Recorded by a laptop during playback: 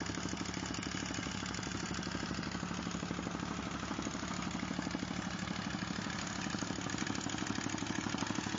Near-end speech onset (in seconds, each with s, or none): none